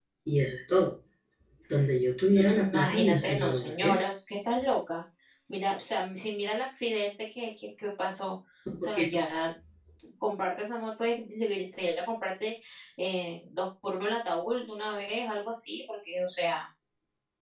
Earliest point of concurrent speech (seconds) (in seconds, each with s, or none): 2.3 s